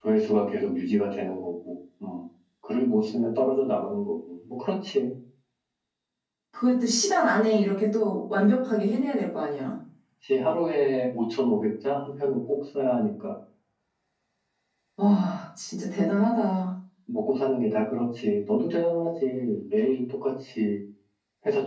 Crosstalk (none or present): none